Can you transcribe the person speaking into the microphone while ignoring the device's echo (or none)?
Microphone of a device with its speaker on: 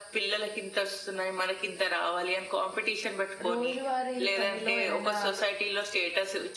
రోజువారీ పనిలో ఏదైనా